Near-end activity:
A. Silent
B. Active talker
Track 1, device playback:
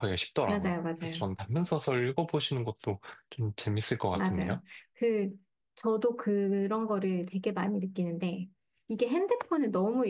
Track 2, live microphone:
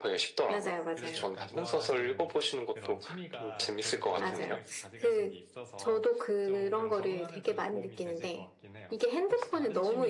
B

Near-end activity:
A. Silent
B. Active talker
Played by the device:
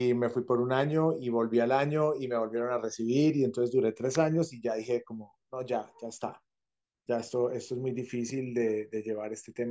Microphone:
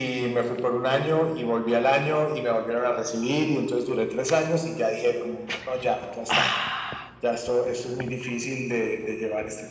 A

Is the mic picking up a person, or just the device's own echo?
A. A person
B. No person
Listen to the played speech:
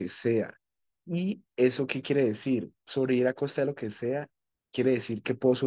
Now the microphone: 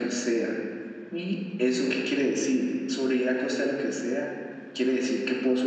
B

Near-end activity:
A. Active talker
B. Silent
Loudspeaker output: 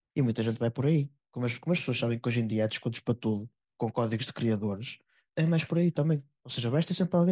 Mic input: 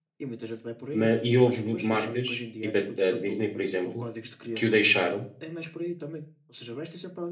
A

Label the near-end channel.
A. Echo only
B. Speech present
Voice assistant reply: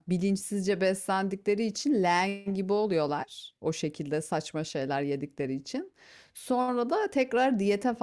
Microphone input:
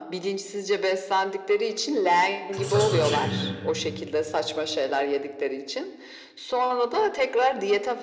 B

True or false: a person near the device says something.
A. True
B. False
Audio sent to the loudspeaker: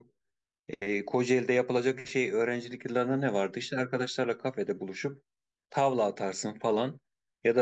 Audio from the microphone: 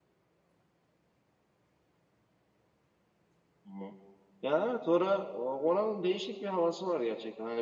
A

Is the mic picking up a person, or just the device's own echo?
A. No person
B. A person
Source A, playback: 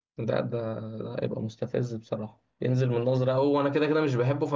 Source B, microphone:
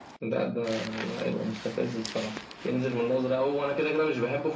A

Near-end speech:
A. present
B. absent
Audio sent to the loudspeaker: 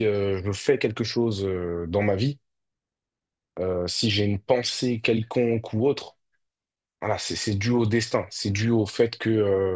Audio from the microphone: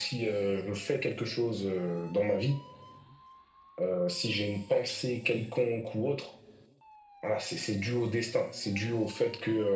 B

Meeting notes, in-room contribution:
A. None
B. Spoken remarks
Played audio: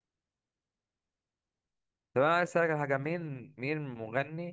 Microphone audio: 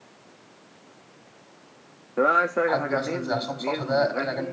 B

